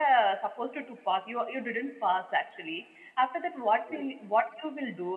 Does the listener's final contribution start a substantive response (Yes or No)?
No